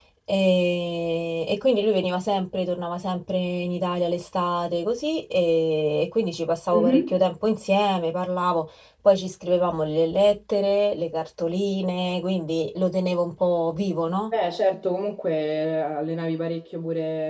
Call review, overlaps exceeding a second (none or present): none